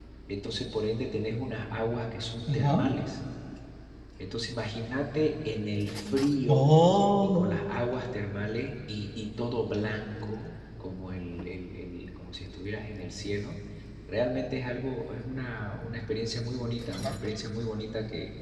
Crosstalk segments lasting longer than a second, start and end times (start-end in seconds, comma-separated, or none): none